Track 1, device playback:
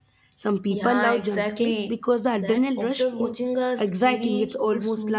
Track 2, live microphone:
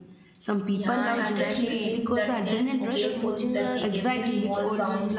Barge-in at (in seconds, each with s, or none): 0.9 s